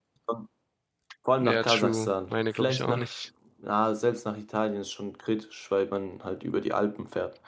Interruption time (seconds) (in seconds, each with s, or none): 1.4 s